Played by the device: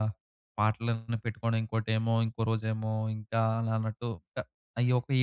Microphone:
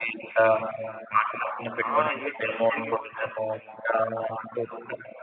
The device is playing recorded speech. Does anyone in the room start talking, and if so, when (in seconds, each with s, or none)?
1.9 s